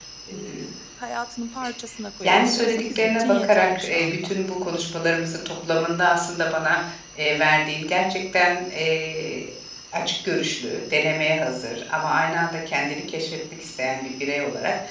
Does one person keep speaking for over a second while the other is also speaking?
Yes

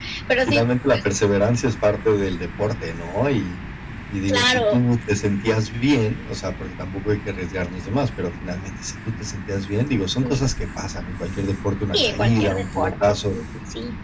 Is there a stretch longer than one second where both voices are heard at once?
Yes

